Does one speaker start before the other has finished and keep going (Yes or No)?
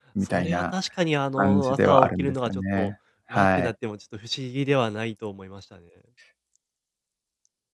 Yes